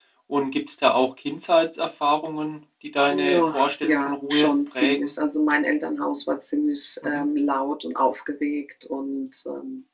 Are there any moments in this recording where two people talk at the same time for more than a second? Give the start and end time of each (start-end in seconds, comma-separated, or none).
3.3-5.1